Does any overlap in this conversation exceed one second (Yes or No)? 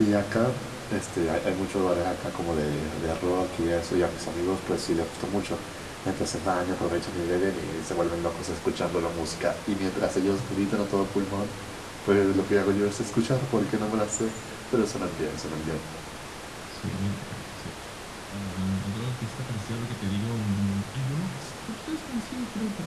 No